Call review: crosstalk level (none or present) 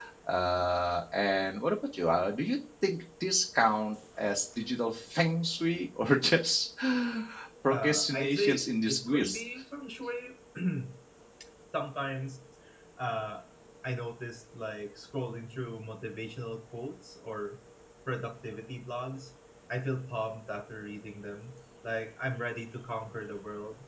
present